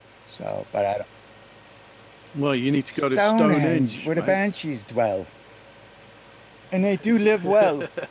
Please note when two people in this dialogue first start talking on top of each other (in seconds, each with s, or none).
2.9 s